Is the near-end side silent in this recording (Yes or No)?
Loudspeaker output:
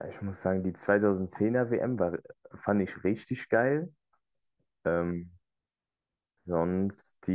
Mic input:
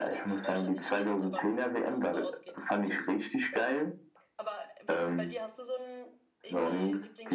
No